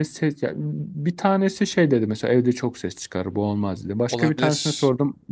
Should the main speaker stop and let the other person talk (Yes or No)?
No